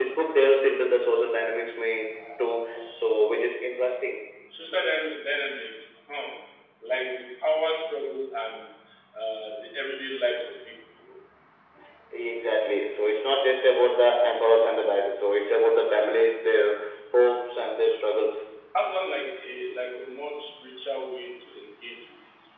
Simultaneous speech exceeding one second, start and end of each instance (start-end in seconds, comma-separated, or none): none